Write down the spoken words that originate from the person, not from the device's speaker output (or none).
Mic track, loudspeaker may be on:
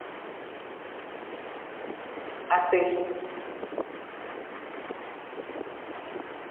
assista.